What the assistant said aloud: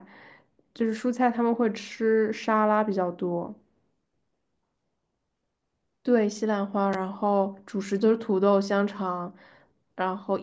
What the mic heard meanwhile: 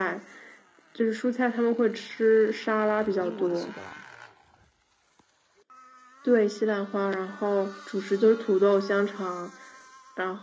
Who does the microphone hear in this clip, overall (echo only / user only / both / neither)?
both